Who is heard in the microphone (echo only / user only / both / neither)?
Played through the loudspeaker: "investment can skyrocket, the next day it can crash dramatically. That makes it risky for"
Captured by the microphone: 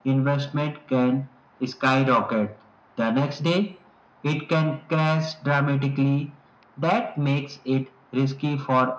echo only